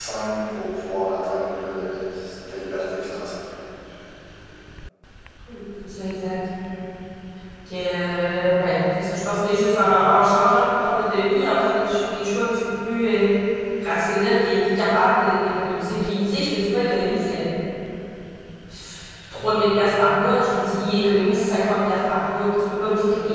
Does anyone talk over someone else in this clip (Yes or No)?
No